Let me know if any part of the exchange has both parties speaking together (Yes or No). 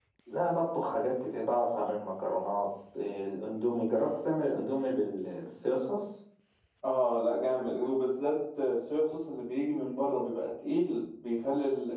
No